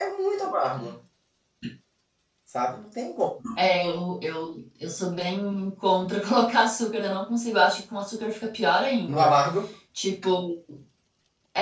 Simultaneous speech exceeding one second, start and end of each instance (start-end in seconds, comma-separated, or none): none